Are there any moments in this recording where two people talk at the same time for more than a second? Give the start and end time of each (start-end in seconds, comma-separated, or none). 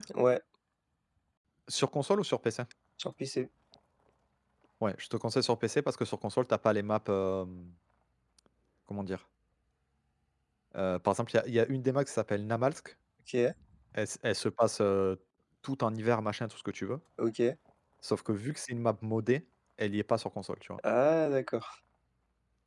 none